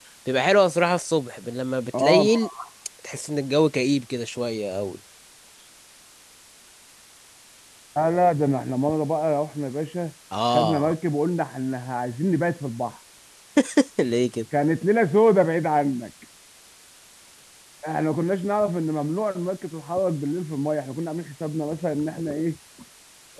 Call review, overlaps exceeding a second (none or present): none